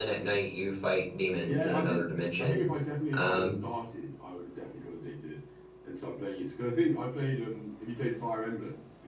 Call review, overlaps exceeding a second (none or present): none